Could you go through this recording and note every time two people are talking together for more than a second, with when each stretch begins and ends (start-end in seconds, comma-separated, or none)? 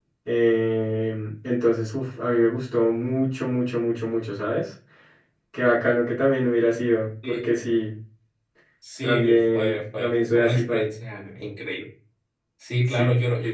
9.0-10.9